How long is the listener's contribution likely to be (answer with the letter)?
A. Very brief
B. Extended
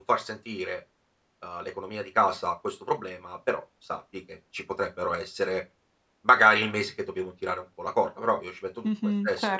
B